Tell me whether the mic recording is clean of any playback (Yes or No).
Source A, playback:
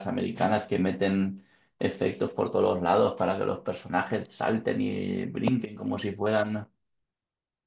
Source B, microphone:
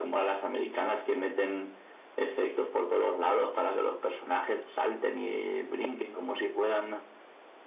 No